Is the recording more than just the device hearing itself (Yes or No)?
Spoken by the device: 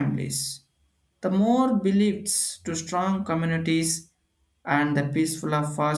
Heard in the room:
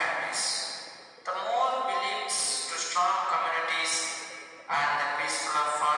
No